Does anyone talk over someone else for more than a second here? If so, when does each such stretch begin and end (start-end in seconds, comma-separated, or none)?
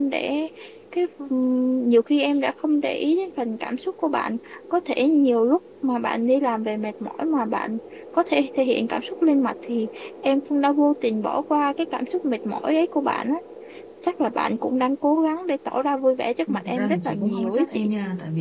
16.5-17.9